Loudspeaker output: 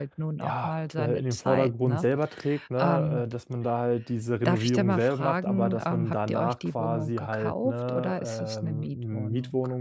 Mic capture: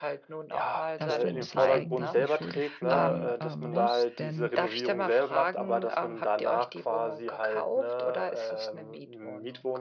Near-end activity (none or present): present